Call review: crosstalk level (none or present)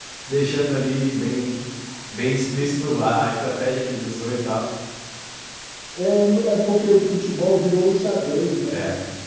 none